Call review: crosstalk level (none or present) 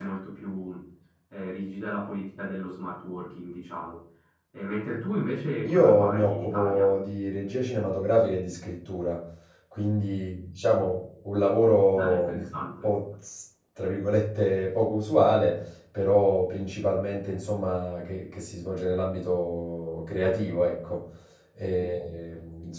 present